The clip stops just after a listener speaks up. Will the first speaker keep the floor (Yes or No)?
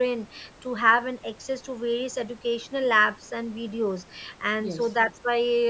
Yes